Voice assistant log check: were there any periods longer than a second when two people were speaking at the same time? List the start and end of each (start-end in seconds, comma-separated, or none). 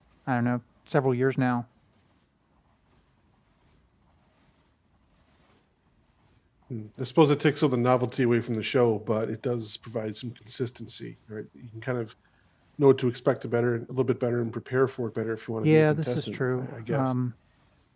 15.6-17.1